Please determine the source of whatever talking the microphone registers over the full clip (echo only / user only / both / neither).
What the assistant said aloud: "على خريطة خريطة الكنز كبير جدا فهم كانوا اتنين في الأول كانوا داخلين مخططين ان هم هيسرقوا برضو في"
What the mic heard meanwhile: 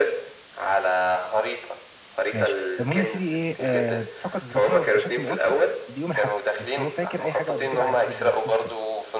both